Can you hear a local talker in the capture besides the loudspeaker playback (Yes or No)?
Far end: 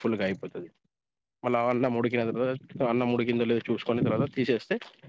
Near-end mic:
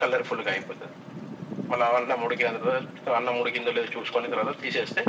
No